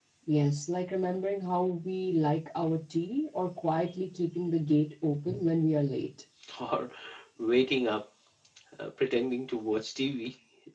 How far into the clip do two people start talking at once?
none

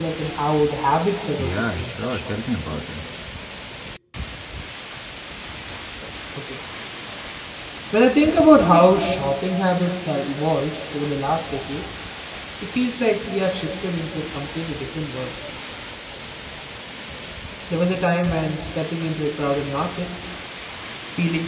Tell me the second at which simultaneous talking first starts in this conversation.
1.4 s

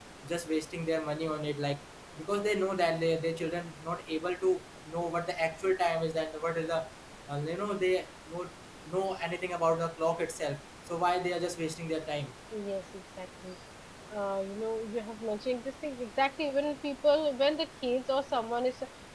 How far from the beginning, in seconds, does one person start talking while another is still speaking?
none

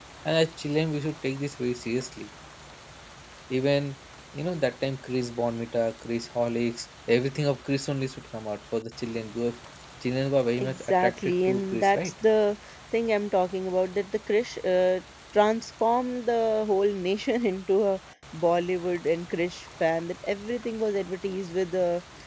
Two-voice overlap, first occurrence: 10.6 s

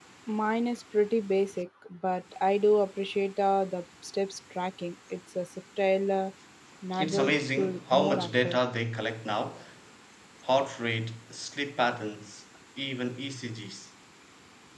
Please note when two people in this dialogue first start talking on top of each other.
7.0 s

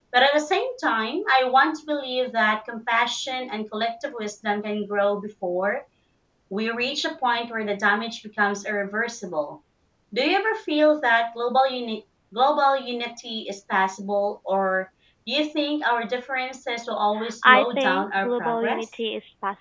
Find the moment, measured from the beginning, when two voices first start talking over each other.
17.5 s

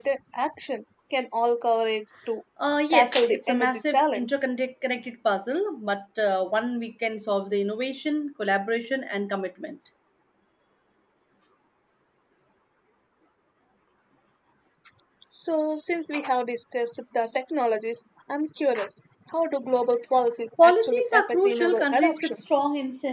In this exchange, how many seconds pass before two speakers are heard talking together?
2.9 s

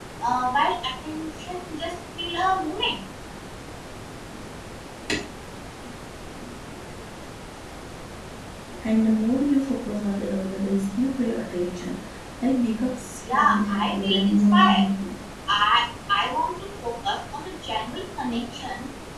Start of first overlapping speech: 13.2 s

